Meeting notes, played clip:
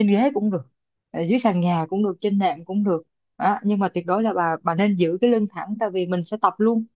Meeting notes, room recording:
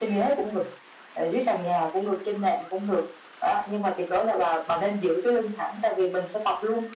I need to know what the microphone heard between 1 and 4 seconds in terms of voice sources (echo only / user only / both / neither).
echo only